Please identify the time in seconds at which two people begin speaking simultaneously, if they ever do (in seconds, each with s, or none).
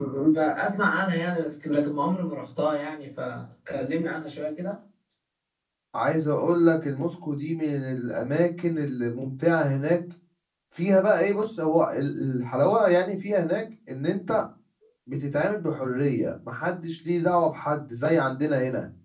none